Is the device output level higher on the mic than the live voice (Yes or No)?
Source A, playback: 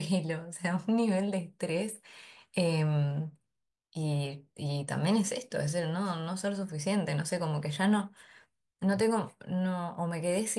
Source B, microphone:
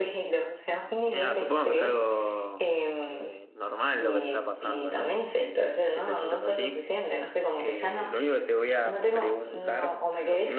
Yes